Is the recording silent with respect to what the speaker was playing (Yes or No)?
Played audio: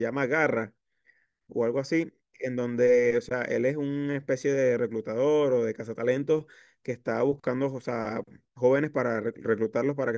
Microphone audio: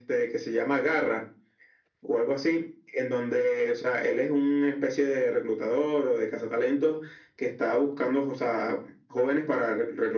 No